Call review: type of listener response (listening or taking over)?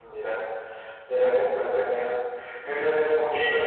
listening